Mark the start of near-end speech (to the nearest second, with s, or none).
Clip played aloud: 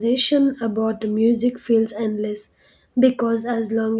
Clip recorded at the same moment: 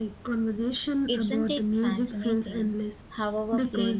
1 s